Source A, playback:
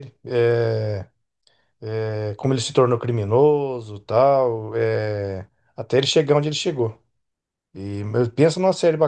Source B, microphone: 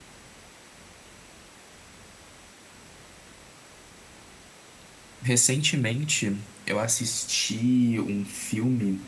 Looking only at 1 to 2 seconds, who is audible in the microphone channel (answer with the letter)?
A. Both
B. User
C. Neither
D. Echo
C